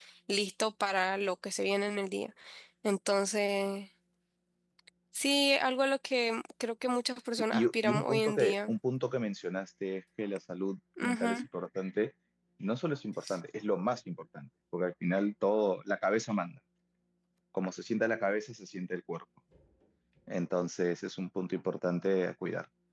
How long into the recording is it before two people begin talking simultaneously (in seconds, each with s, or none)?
7.3 s